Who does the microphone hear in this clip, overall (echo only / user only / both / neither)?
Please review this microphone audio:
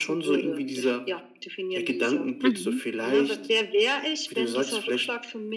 both